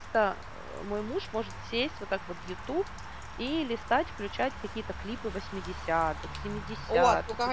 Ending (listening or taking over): taking over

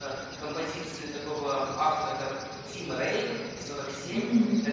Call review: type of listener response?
listening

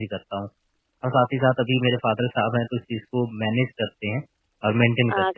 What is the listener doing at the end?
taking over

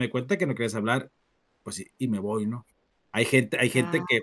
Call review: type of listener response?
listening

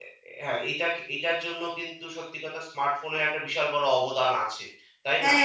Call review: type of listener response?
taking over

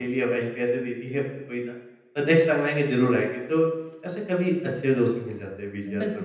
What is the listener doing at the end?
taking over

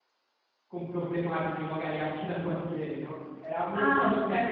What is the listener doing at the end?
listening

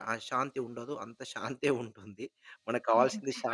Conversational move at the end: taking over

